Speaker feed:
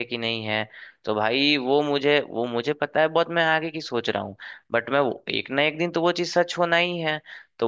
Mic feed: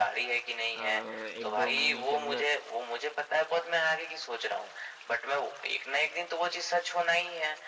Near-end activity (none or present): present